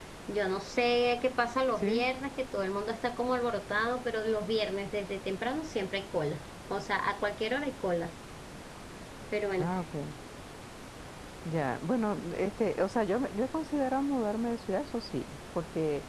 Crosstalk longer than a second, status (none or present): none